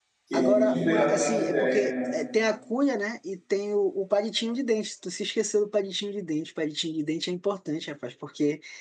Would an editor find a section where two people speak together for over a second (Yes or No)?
Yes